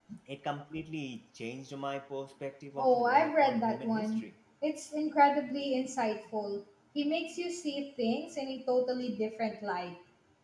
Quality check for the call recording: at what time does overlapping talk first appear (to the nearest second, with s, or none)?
3 s